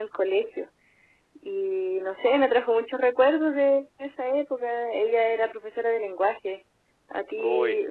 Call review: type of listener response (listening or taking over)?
listening